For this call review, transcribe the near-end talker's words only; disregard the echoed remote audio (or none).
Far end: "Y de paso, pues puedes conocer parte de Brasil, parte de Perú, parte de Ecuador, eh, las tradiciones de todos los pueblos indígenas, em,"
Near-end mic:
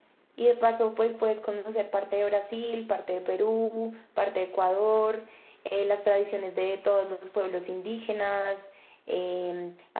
none